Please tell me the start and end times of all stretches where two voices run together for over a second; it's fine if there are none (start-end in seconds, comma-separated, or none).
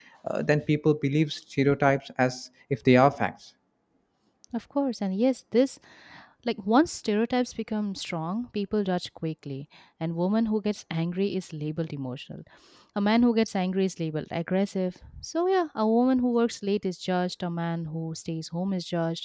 none